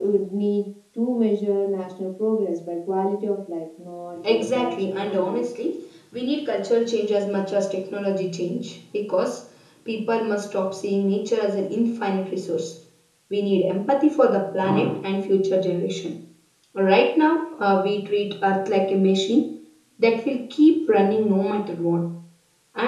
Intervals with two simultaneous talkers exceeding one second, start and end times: 4.3-5.6

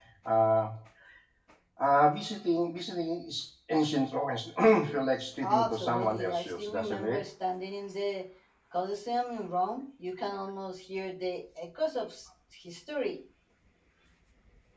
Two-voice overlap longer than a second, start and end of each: 5.4-7.2

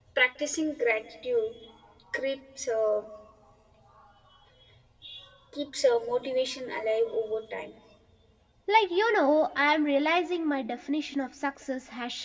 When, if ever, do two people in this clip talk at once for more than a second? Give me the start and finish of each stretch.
none

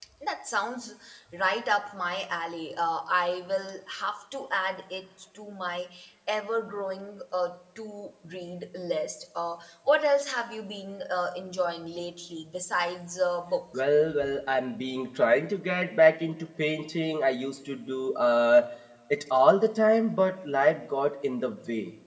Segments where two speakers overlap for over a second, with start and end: none

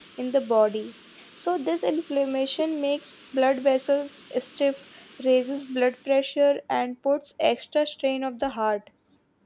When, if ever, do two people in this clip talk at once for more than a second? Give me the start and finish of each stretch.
none

